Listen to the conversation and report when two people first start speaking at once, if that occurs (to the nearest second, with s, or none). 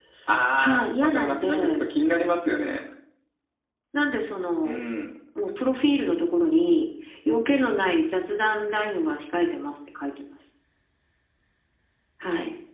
1 s